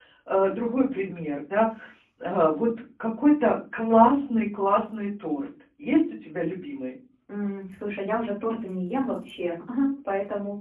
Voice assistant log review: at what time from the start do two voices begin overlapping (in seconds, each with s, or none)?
none